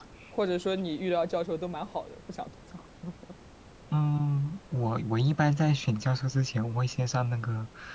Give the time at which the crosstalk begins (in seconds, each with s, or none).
none